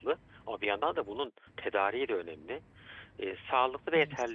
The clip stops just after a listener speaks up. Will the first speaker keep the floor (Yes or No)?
Yes